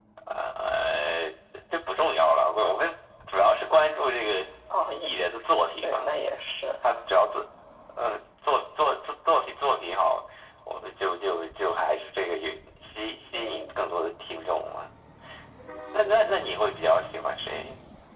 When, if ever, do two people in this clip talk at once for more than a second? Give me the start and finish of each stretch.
none

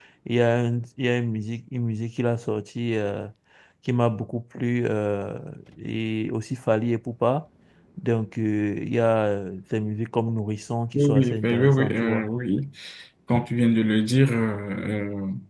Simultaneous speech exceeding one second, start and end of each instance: 11.0-12.2

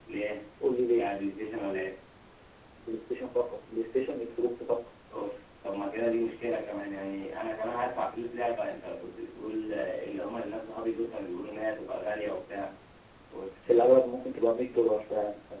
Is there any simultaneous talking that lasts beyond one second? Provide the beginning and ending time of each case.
none

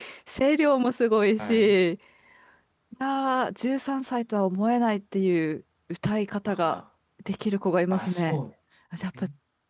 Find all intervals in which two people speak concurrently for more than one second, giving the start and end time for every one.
none

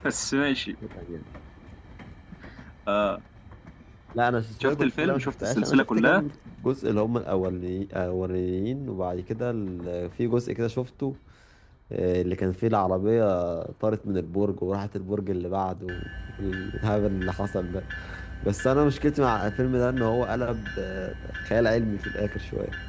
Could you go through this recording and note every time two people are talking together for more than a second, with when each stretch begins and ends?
4.6-6.2

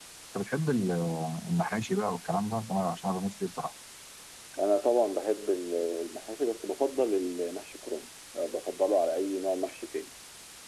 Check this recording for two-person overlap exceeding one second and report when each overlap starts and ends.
none

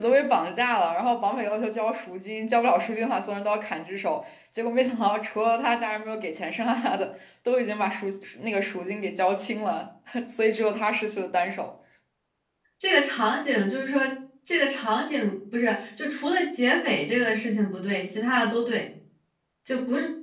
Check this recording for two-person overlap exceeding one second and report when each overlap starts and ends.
none

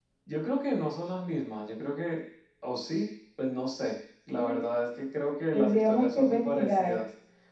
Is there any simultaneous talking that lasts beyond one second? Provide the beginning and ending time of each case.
5.5-7.0

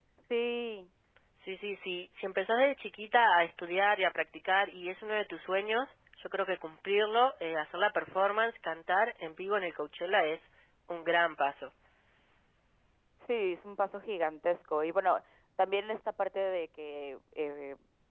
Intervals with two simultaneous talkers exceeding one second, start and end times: none

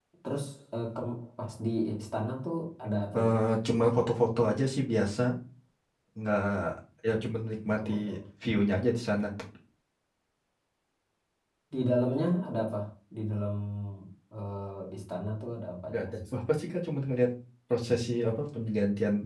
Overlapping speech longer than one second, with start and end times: none

